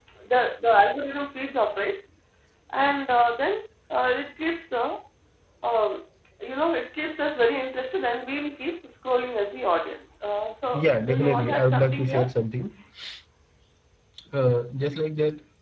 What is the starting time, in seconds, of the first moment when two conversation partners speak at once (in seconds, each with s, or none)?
10.7 s